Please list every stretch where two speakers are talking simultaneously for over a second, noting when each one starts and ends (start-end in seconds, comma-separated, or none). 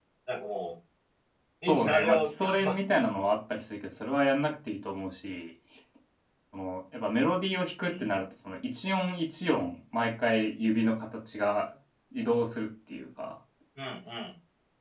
1.6-3.0